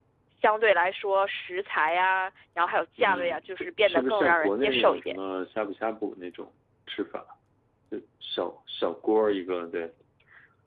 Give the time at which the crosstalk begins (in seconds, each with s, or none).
3.0 s